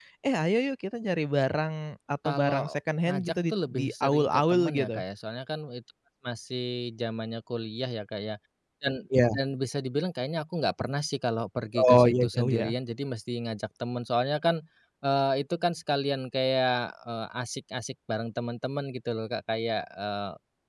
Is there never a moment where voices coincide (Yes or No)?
No